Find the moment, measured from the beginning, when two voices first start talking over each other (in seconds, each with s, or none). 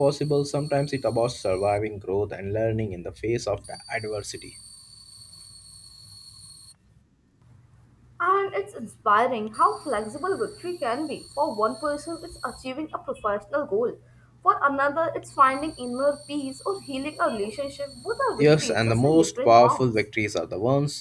18.4 s